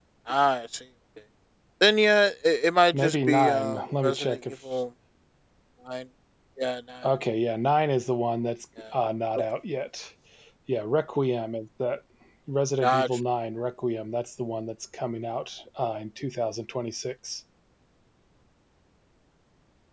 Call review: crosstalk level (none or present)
present